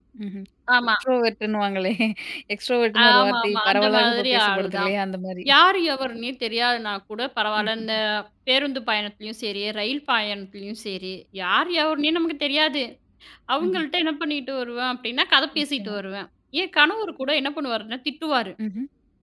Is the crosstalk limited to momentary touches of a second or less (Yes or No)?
No